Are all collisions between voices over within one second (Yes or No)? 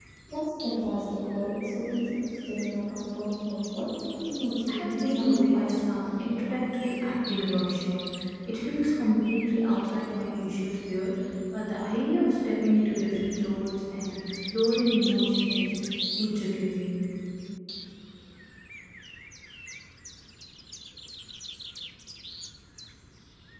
No